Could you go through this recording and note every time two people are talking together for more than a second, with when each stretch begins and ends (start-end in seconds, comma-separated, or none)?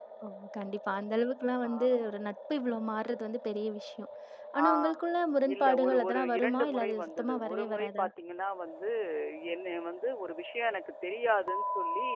5.5-8.0